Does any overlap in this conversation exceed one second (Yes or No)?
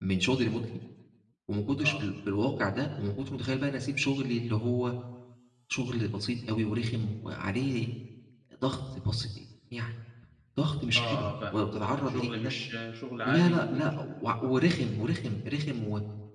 Yes